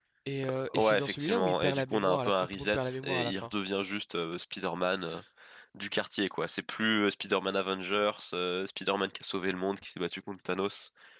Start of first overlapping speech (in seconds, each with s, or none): 0.7 s